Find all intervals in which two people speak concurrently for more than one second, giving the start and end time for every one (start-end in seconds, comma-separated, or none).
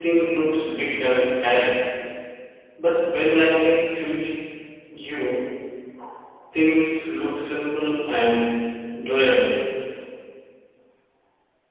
none